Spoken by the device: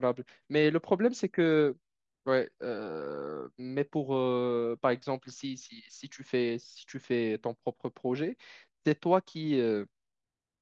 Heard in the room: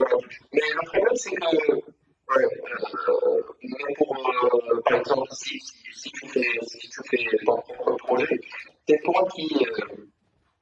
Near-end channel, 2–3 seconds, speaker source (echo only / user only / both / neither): echo only